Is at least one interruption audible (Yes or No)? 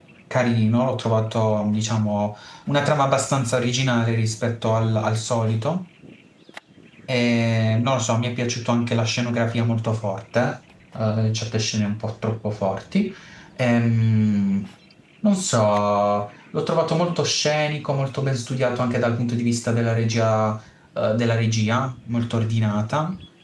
No